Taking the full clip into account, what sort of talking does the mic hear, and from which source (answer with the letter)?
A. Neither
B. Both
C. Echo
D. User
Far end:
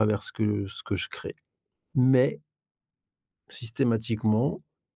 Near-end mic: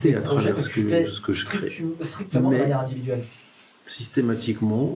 B